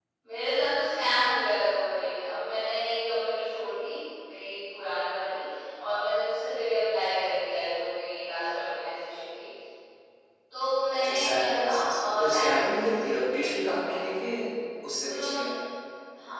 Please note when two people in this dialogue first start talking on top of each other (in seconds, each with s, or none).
10.9 s